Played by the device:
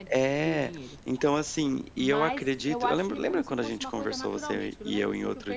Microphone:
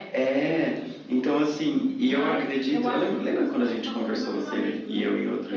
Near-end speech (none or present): none